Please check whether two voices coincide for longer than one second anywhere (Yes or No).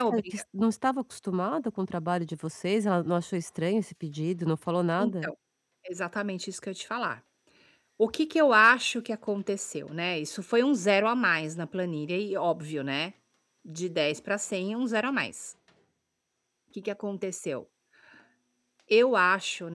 No